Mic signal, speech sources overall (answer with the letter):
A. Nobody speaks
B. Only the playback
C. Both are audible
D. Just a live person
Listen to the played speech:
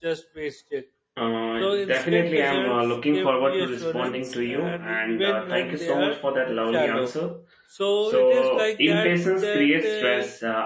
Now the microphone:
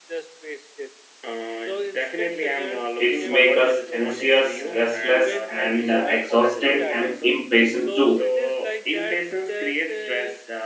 C